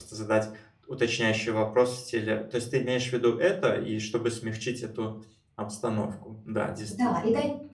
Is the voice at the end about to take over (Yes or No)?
Yes